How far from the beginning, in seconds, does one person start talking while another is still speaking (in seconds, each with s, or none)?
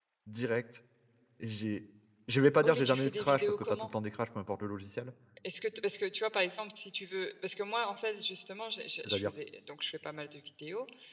2.6 s